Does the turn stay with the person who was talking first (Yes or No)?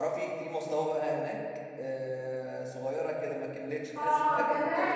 No